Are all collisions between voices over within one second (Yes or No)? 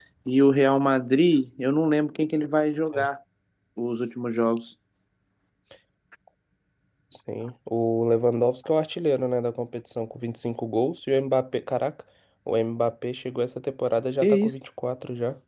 Yes